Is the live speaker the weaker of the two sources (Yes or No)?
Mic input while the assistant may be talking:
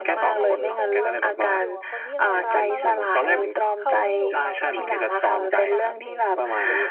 Yes